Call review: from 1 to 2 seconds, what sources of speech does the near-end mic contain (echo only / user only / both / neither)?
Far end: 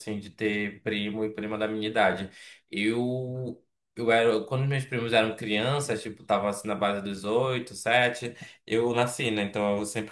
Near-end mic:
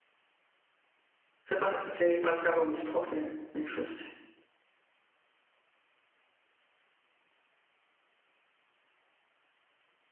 user only